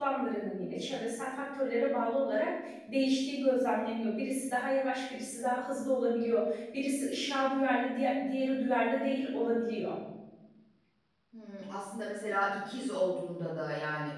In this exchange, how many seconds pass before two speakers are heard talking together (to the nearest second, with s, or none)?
none